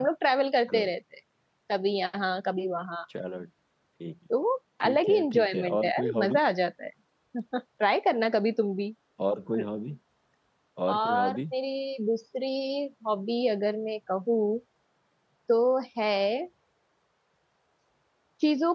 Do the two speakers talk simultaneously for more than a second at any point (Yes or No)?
Yes